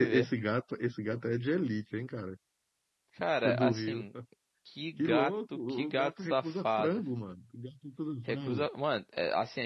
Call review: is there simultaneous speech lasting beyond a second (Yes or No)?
Yes